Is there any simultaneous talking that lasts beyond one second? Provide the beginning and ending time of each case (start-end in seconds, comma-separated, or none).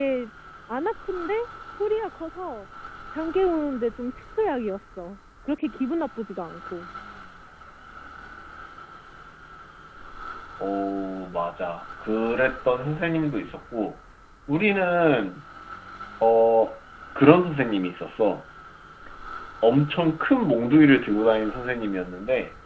none